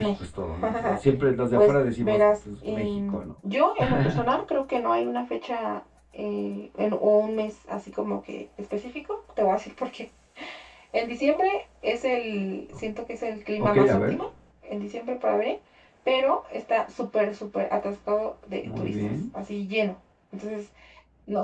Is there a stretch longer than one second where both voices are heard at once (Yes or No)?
Yes